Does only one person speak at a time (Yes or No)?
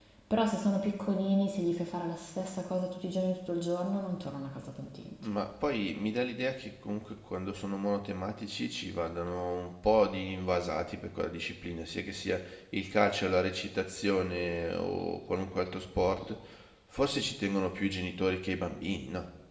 Yes